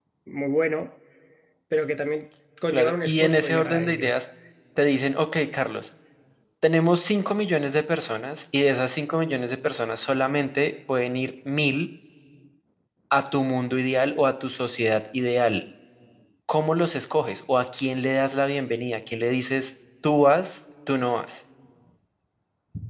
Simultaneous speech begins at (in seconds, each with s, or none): 2.7 s